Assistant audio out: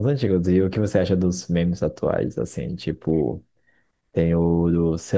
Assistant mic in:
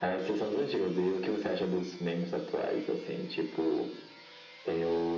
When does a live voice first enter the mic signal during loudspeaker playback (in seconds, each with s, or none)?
none